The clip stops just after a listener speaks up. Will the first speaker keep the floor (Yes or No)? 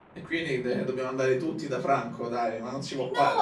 No